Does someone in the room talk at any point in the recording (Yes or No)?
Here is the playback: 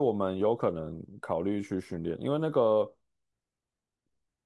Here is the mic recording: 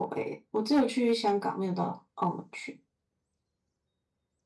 Yes